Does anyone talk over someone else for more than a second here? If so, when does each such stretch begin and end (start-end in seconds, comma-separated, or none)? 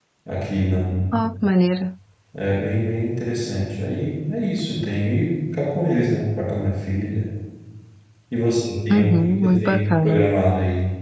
8.9-10.3